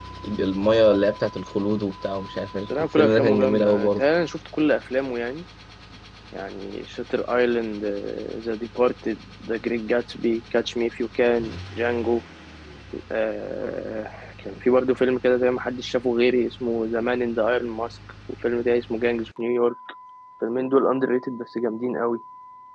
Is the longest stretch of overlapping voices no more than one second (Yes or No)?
No